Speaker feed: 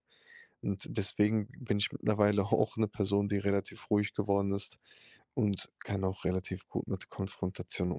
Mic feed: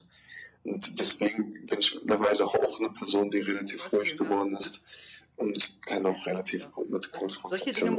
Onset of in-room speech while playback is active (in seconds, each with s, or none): 3.6 s